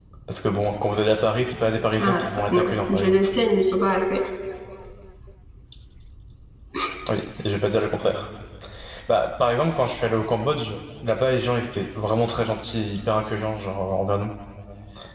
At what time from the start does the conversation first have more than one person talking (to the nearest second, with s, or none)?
2 s